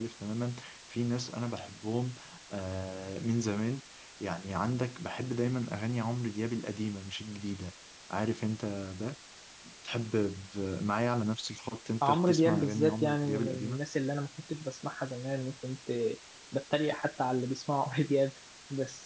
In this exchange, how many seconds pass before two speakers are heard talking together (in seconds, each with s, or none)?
12.0 s